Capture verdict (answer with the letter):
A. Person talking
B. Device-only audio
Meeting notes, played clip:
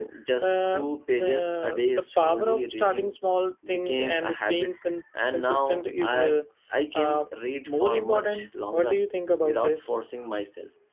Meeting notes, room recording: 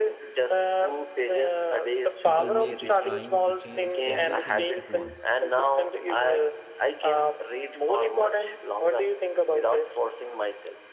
A